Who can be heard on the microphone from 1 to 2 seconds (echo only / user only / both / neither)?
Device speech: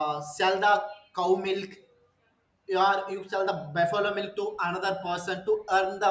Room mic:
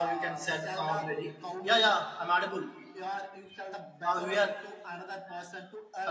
both